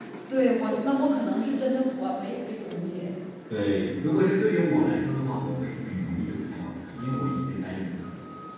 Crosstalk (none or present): none